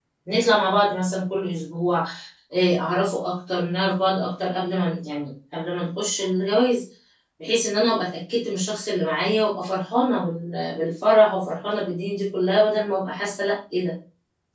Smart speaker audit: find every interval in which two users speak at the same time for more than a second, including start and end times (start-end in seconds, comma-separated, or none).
none